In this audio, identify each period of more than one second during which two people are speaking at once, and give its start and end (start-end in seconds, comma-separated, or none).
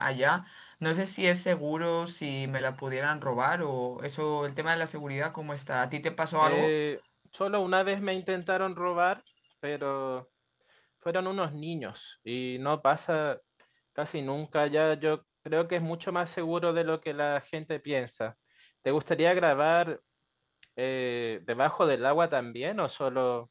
none